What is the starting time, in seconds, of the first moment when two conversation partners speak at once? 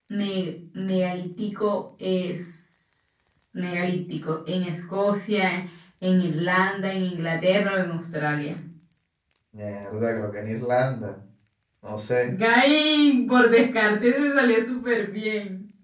none

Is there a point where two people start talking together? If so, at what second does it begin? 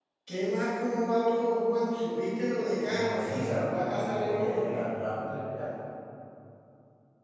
2.9 s

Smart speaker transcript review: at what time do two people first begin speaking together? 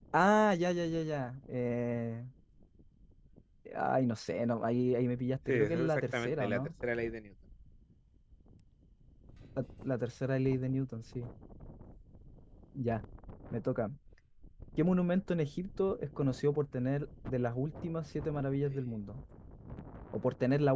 5.5 s

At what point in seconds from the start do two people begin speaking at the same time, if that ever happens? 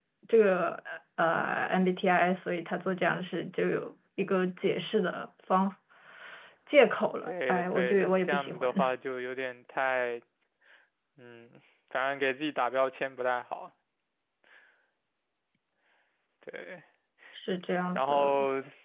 7.3 s

